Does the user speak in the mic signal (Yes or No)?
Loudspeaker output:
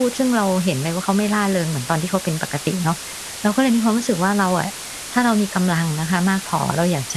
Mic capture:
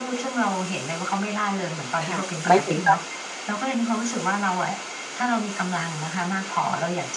Yes